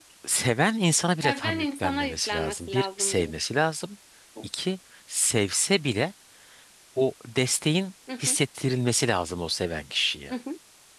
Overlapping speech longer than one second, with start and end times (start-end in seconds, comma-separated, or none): 1.2-3.3